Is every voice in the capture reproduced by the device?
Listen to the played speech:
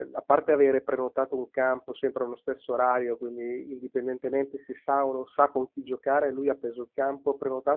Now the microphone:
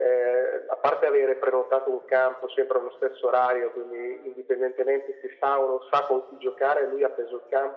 Yes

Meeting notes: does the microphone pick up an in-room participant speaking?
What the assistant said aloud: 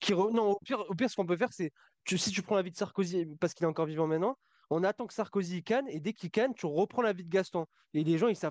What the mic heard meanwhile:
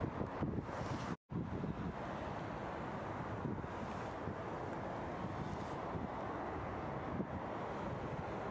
No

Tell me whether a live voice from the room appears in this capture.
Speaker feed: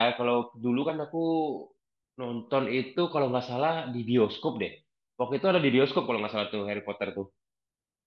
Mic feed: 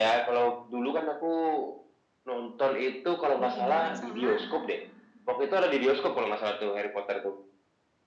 Yes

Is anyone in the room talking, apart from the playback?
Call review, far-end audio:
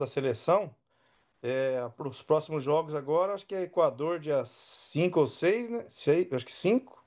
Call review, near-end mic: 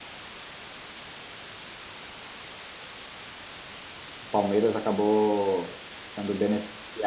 Yes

